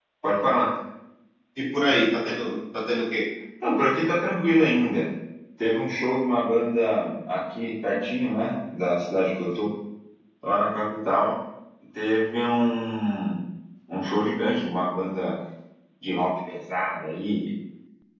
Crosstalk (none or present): none